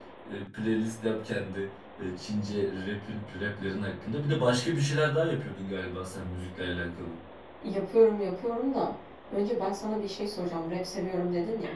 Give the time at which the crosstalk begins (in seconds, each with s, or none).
none